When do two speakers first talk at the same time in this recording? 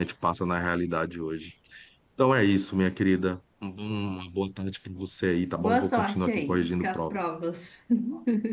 5.6 s

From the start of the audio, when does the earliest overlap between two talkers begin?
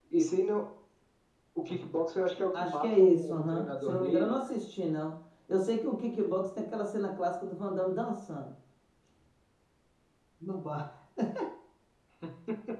2.5 s

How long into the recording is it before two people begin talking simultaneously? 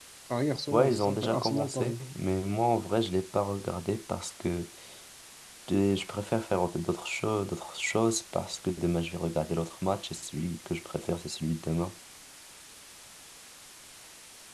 0.7 s

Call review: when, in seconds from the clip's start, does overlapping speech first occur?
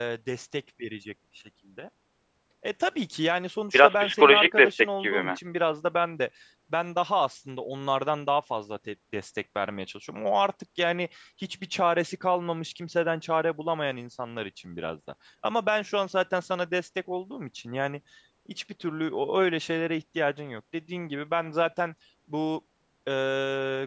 3.7 s

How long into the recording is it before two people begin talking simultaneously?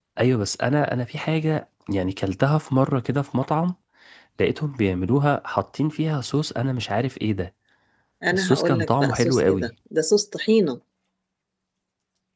8.3 s

